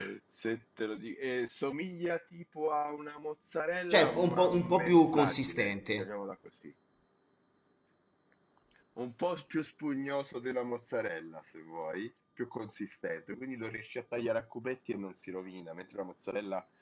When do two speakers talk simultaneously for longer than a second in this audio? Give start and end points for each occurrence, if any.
3.9-6.1

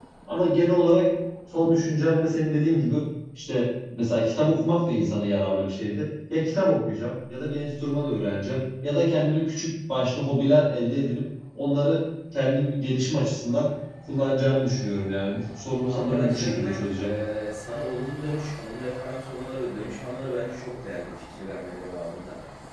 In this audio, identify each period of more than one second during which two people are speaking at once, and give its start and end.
15.8-17.1

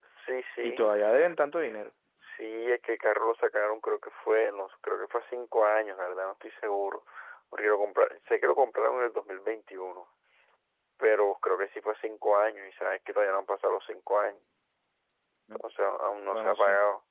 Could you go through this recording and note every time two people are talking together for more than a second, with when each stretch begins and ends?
none

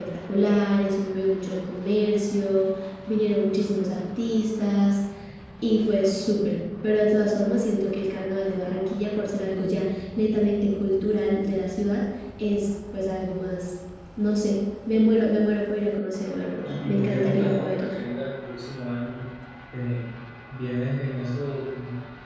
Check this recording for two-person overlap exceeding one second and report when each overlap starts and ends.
16.6-17.9

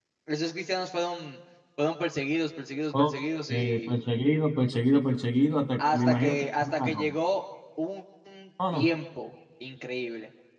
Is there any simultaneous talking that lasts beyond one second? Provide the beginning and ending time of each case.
5.8-7.1

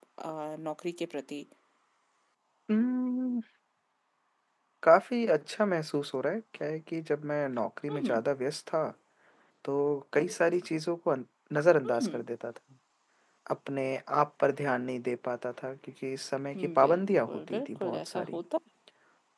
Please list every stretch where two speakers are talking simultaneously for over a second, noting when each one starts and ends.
16.6-18.4

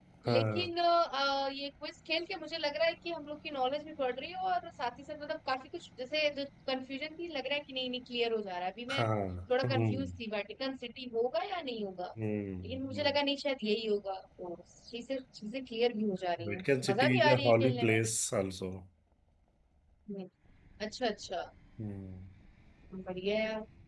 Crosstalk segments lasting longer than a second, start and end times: 16.5-17.9

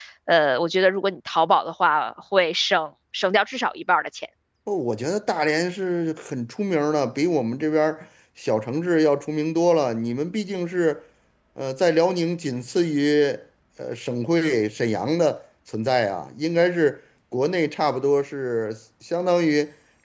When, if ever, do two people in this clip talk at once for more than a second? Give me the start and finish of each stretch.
none

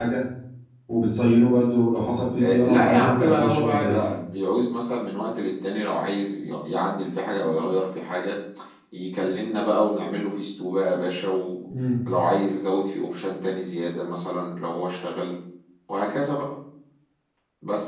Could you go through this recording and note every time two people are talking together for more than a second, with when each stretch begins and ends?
2.4-4.0

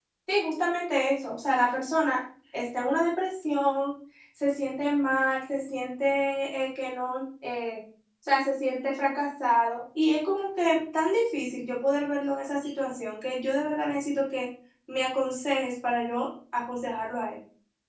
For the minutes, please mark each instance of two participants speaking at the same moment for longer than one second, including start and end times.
none

